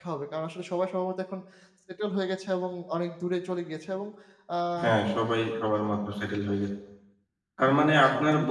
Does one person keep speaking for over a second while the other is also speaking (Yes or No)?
No